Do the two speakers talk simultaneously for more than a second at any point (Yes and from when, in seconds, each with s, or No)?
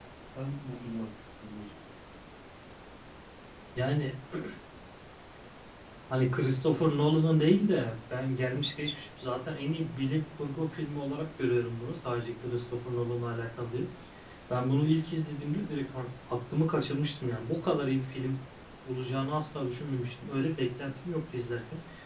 No